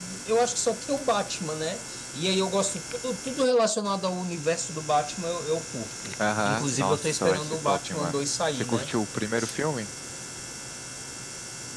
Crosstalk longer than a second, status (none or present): present